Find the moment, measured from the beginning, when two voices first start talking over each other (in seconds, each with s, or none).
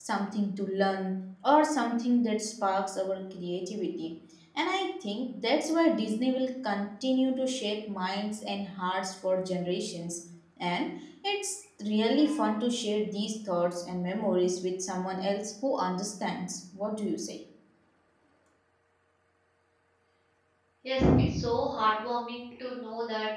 none